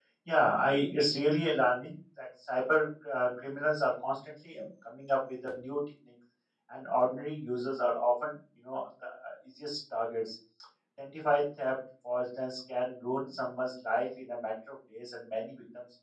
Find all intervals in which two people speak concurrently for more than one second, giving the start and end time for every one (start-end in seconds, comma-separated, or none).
none